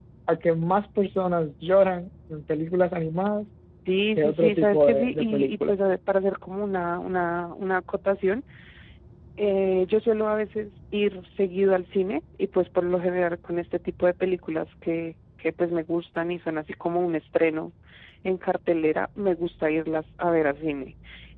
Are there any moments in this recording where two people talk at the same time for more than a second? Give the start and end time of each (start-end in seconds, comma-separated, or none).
4.2-5.7